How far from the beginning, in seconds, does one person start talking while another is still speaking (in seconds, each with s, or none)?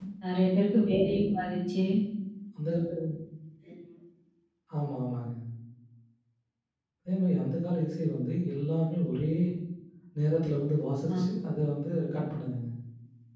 none